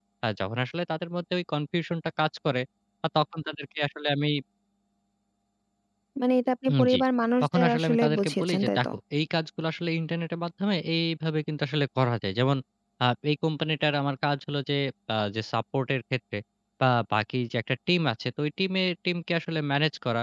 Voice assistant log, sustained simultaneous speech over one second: present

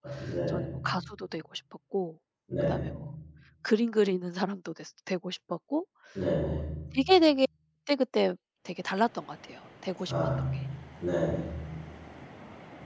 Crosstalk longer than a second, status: none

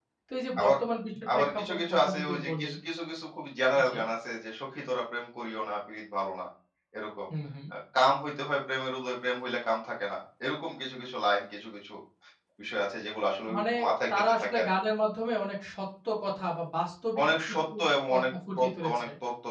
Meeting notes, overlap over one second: present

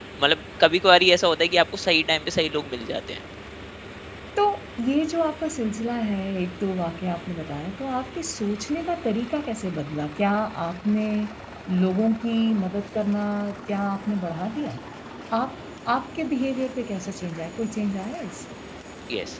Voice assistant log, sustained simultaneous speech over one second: none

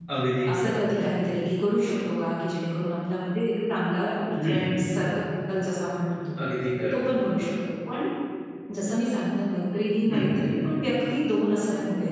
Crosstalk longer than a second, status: none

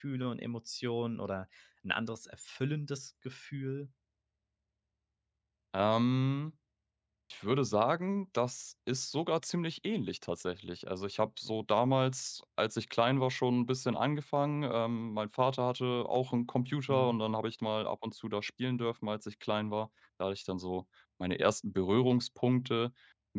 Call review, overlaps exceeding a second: none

